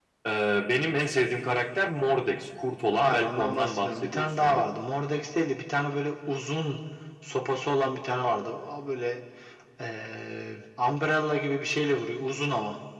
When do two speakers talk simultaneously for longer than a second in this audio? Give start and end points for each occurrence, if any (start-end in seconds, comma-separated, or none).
2.9-4.6